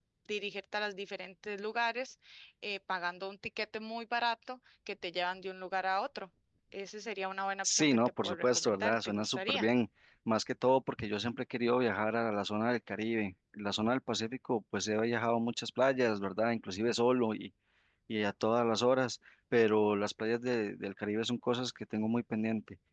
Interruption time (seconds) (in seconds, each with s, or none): 7.6 s